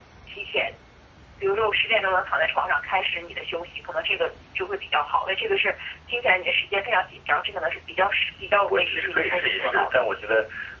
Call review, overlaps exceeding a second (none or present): present